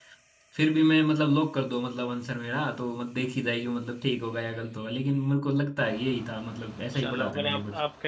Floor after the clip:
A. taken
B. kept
A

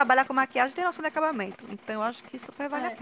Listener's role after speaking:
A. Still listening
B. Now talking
B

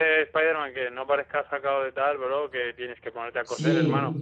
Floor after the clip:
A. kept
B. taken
B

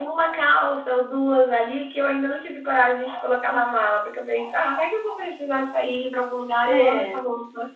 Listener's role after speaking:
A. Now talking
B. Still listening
B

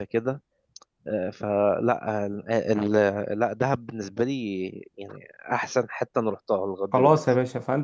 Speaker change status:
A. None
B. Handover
B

